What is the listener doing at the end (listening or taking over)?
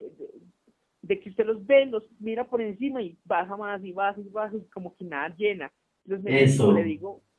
listening